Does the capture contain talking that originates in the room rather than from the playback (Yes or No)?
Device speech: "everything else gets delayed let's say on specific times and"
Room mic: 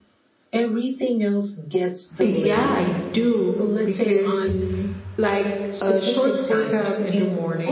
Yes